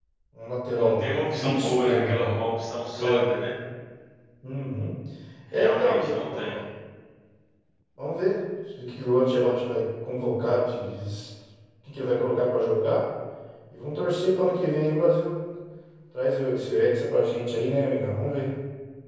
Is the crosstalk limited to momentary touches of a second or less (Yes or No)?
No